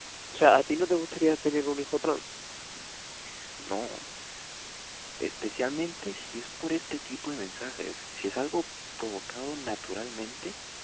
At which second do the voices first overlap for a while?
none

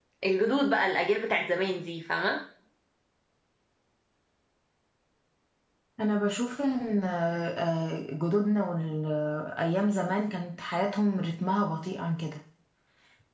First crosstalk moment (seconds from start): none

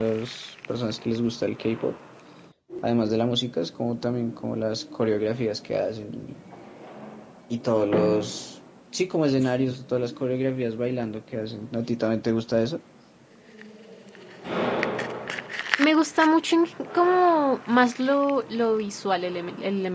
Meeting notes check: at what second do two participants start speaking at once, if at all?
none

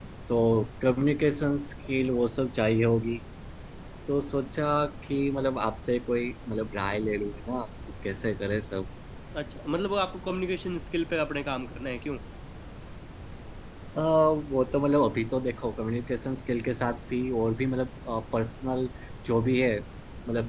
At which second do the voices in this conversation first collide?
none

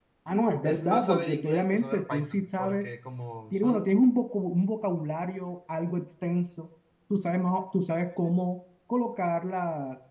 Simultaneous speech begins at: 0.6 s

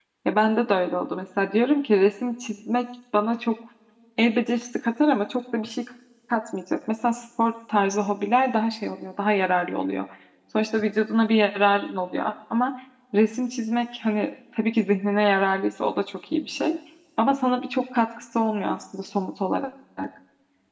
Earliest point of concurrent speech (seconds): none

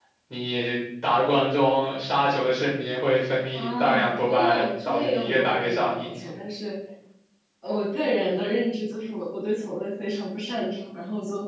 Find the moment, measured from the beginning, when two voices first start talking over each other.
3.5 s

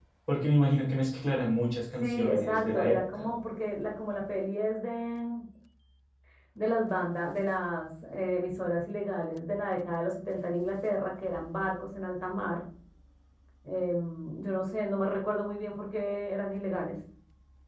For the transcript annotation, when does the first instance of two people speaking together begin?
2.0 s

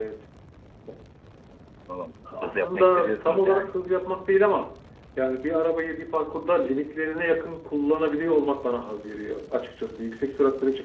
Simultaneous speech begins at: 2.4 s

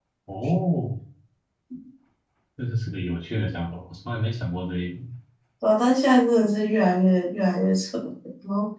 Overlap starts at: none

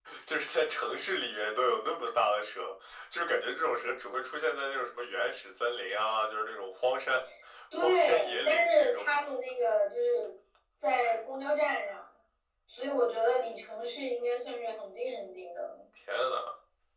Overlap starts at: 7.8 s

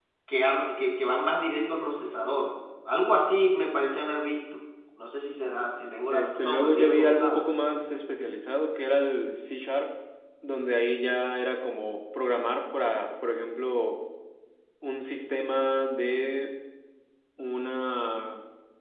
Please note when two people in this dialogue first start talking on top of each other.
6.1 s

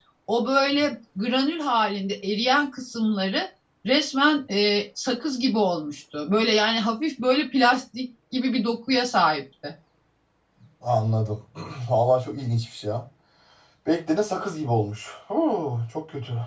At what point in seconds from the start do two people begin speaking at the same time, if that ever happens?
none

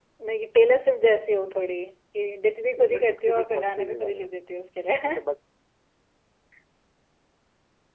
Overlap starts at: 2.8 s

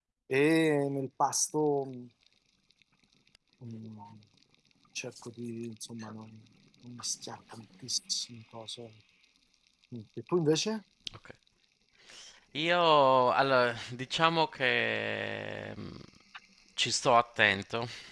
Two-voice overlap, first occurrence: none

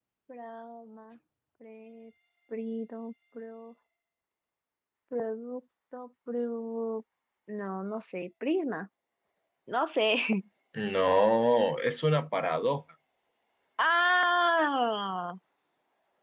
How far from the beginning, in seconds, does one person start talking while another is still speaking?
none

